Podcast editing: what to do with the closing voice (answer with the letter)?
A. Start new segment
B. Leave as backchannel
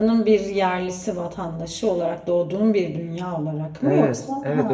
A